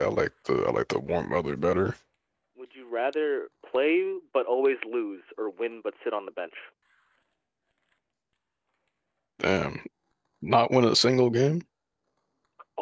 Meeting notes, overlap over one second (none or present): none